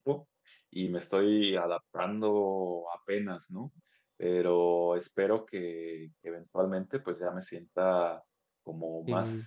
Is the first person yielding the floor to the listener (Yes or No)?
No